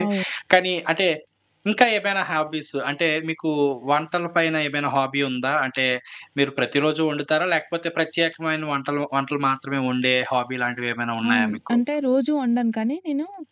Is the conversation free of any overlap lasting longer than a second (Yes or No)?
Yes